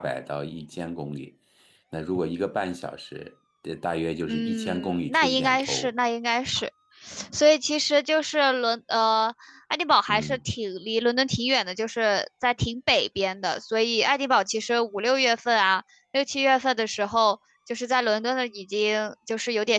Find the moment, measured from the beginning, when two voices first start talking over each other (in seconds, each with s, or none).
4.3 s